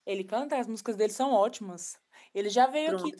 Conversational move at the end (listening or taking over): listening